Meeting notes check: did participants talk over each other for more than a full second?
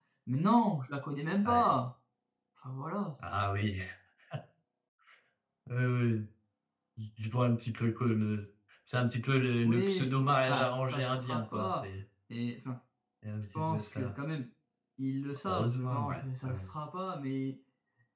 Yes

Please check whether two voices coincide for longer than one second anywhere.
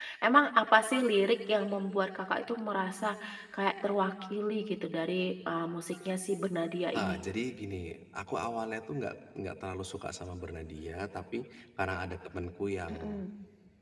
No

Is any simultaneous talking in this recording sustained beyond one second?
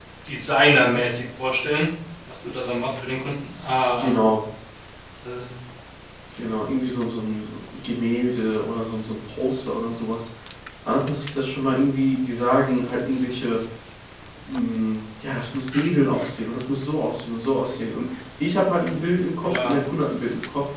No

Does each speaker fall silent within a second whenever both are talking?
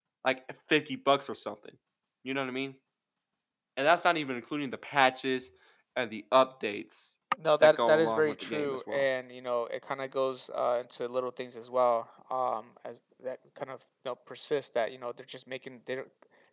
No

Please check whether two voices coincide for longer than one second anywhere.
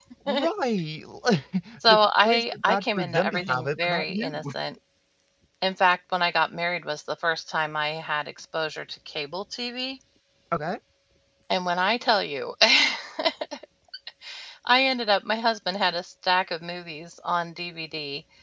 Yes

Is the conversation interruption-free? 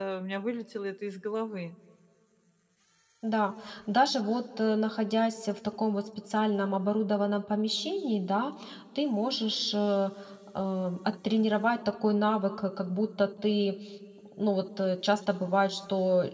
Yes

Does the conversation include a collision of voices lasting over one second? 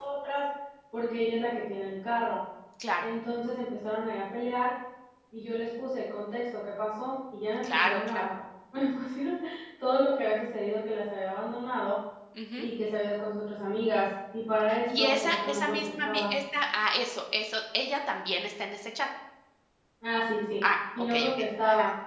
Yes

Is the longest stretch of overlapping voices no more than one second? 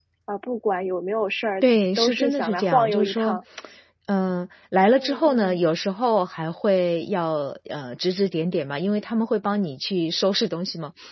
No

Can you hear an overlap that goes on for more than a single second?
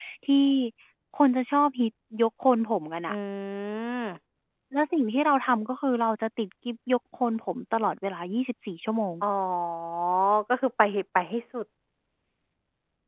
No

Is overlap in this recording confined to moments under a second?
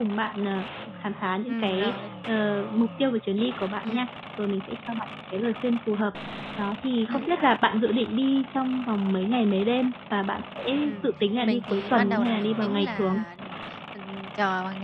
No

